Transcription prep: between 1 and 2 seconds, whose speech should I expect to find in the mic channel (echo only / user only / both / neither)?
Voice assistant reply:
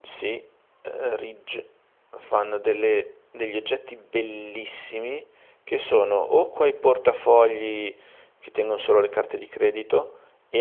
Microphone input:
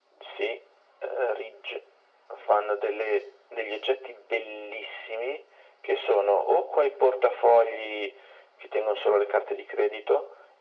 echo only